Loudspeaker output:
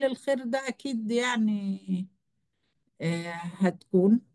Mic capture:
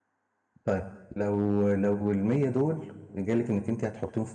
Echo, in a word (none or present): none